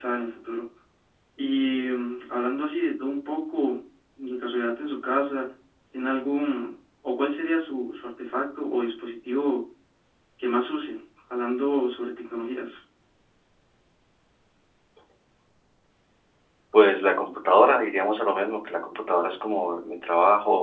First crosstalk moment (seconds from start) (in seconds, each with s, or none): none